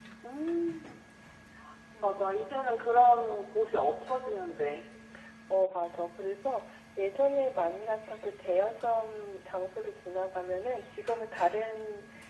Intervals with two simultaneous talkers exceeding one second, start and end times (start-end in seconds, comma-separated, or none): none